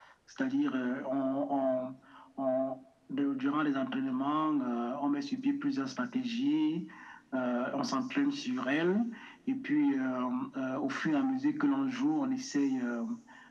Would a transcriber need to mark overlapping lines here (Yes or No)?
No